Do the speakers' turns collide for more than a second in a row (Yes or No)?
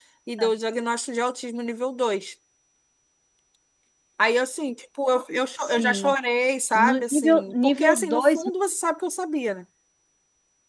Yes